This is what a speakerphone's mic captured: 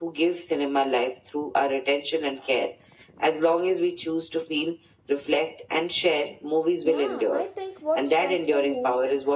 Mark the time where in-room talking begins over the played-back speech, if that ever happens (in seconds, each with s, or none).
6.8 s